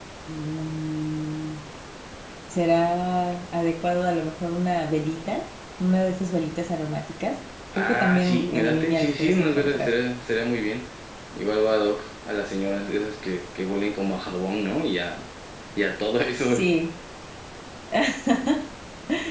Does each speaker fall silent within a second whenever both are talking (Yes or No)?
No